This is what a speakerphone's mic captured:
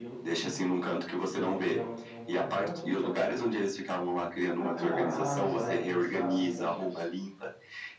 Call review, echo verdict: present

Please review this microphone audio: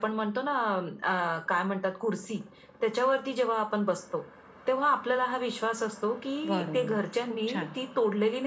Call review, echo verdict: present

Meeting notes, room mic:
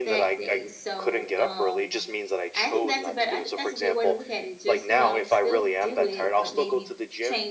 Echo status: present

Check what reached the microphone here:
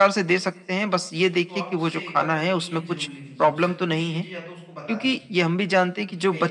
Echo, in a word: present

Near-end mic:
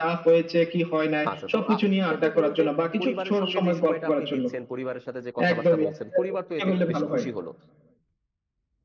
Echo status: present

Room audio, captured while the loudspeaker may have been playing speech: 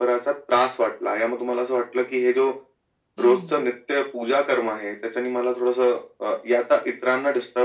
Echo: present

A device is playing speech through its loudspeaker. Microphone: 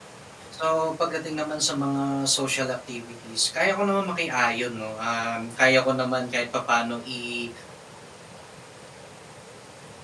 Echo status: none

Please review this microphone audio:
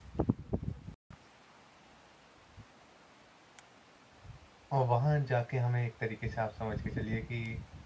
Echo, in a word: none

